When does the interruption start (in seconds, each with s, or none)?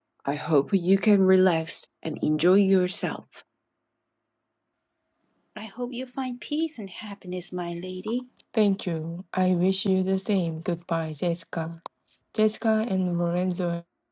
none